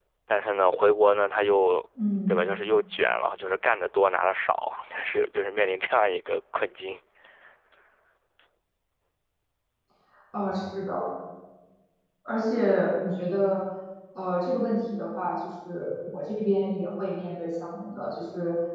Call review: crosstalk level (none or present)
none